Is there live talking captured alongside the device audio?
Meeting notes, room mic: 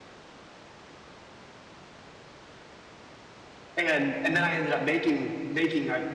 Yes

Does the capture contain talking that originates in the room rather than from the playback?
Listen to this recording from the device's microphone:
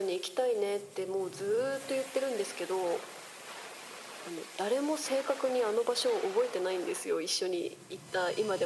No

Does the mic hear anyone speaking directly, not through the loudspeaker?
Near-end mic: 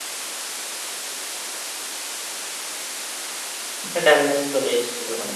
Yes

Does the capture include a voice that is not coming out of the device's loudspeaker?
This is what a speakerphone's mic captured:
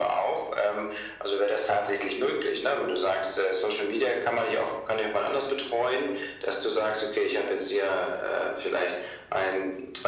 No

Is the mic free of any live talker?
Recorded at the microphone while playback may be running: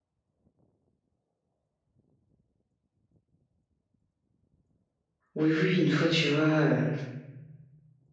No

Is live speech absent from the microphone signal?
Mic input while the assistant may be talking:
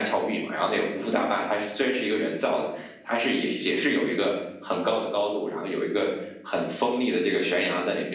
Yes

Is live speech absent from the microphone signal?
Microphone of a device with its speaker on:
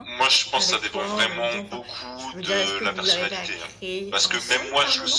No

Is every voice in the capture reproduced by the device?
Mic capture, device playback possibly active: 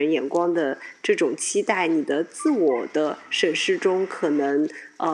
Yes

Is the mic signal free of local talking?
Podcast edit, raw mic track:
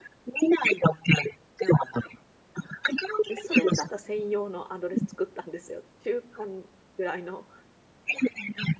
No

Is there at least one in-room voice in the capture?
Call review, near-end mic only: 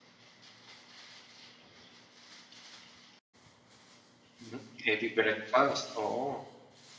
Yes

